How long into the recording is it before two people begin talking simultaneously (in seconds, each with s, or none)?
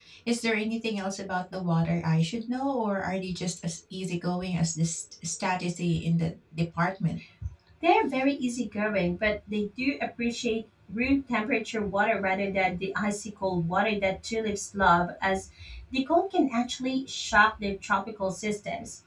none